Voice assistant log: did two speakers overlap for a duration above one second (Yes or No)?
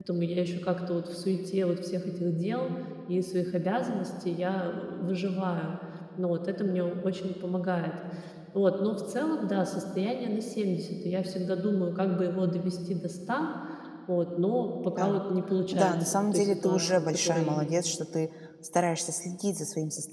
Yes